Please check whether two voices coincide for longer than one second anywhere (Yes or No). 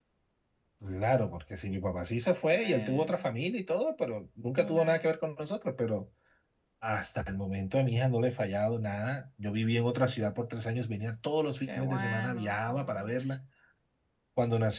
Yes